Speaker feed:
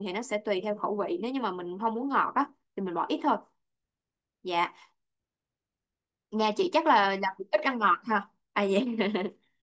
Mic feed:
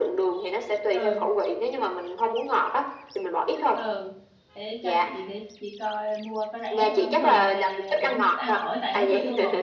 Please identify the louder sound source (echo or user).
echo